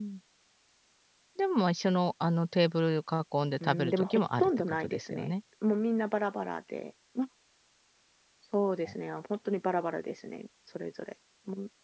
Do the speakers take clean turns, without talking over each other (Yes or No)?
No